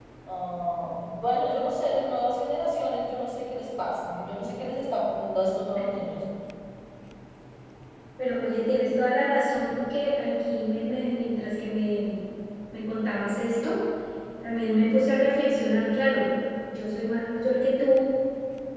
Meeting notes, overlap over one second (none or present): none